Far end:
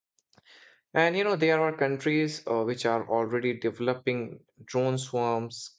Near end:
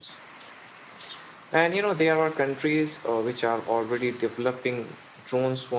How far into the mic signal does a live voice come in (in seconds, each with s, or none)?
none